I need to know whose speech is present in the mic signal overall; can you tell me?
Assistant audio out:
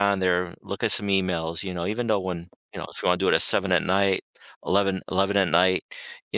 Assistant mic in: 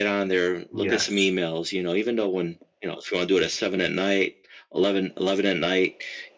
both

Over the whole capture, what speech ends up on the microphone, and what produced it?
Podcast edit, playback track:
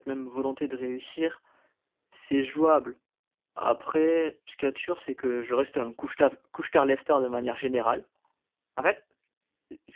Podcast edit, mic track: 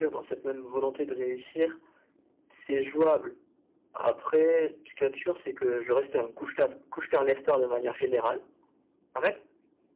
echo only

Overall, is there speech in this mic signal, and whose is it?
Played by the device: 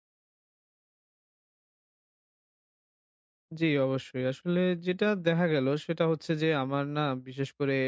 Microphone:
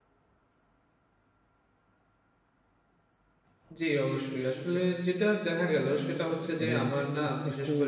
both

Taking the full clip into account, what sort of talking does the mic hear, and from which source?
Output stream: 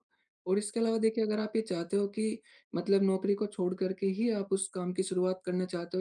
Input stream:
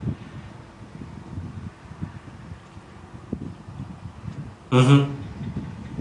user only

